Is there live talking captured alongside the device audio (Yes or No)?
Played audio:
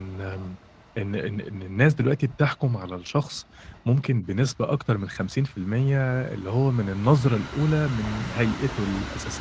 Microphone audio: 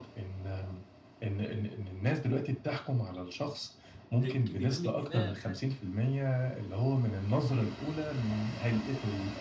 Yes